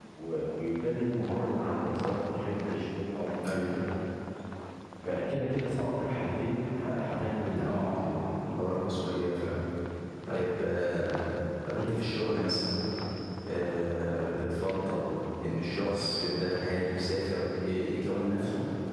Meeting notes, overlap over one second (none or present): none